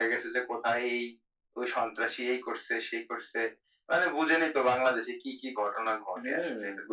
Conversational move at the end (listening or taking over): taking over